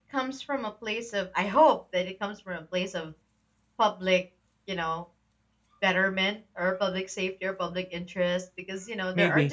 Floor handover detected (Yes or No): No